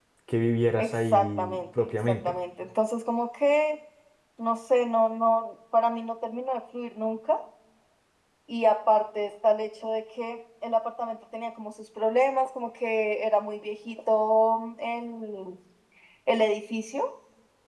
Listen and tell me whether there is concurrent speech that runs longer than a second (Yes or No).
Yes